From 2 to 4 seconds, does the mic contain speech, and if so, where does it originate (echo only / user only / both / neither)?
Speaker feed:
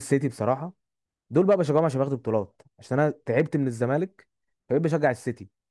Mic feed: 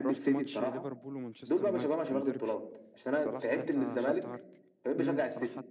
both